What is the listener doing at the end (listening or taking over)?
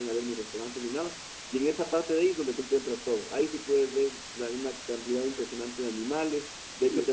listening